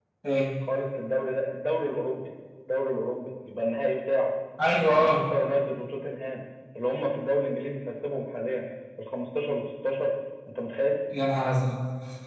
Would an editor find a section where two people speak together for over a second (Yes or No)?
No